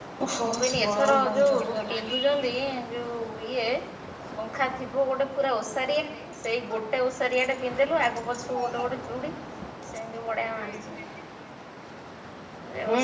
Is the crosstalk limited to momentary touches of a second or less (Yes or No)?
No